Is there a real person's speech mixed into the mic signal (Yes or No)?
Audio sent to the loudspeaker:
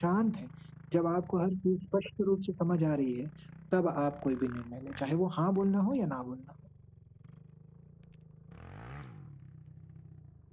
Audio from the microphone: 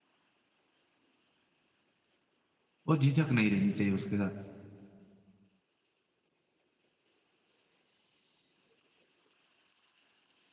Yes